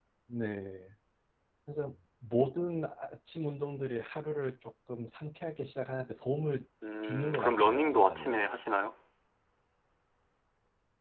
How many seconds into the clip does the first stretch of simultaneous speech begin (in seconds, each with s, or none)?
6.8 s